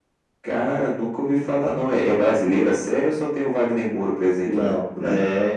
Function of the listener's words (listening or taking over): taking over